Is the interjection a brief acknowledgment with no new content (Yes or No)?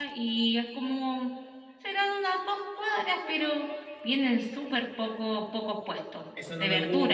No